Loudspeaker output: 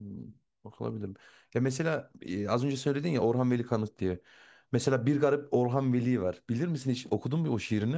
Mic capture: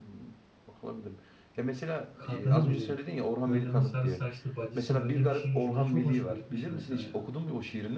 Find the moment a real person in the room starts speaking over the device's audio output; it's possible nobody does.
2.1 s

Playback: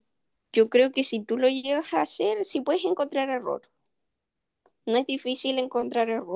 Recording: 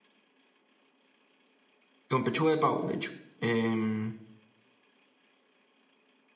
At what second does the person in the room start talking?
2.1 s

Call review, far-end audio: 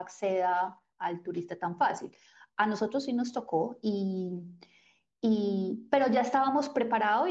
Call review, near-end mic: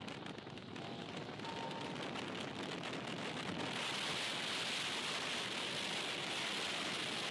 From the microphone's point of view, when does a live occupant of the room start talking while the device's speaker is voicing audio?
none

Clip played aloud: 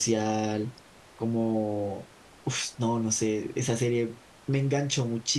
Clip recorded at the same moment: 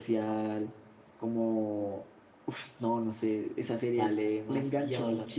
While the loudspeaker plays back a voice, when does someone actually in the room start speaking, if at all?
3.9 s

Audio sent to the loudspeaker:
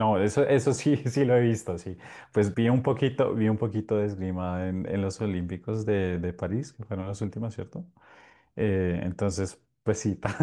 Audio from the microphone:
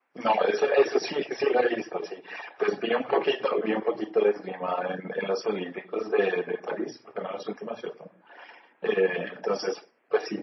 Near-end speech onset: none

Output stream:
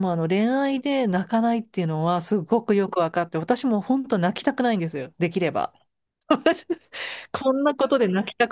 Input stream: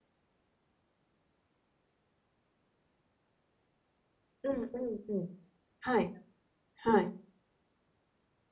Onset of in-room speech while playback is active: 4.4 s

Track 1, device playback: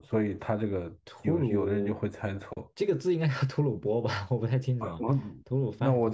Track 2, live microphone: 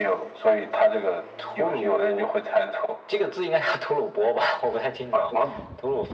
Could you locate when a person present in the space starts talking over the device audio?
none

